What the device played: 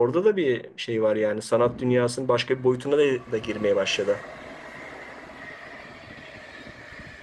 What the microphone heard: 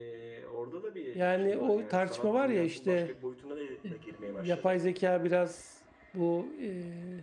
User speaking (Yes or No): Yes